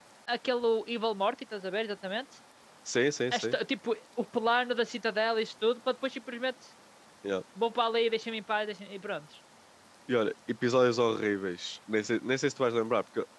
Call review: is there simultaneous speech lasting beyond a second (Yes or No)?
No